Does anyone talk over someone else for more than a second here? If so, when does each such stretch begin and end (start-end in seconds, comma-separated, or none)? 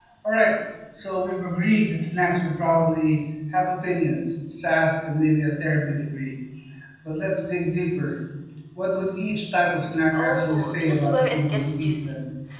10.1-12.1